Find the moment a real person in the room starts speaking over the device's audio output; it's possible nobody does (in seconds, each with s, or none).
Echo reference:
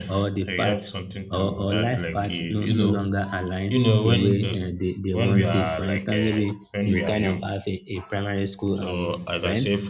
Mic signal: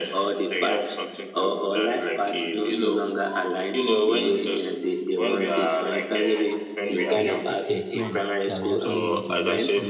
7.1 s